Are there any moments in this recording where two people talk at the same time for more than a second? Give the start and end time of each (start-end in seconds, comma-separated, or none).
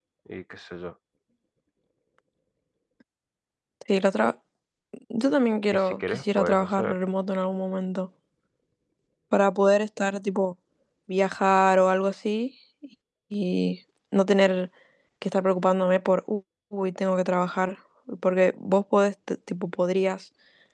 5.7-7.0